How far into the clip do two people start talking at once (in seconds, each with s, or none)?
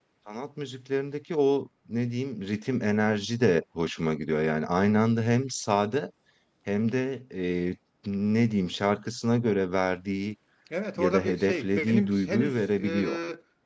11.0 s